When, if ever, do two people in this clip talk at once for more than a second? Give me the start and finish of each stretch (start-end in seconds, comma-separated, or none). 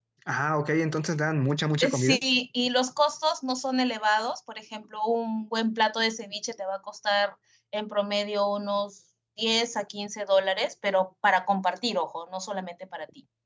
none